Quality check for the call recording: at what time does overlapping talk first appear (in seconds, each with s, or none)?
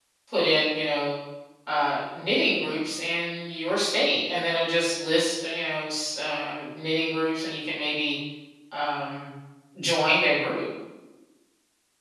none